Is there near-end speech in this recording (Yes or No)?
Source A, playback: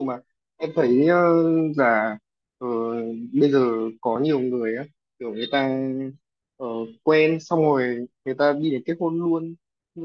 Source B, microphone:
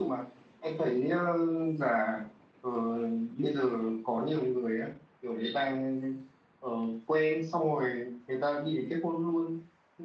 No